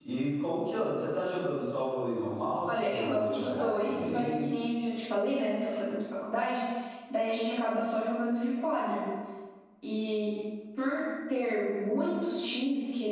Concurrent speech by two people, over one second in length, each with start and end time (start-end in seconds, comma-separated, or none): 2.7-4.5